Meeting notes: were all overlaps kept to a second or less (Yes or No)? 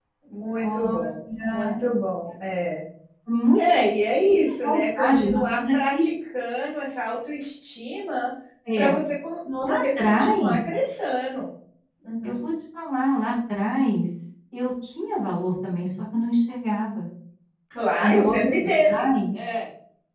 No